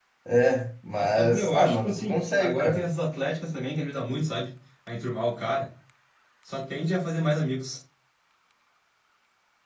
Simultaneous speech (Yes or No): Yes